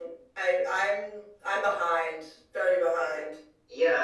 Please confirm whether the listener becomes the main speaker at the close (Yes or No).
Yes